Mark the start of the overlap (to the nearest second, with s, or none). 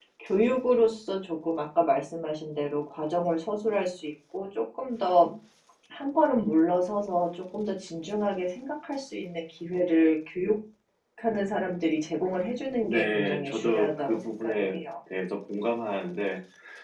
13 s